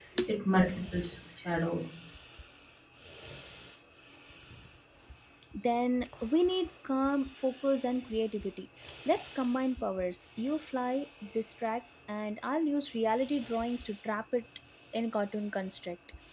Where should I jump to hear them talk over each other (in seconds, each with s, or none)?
none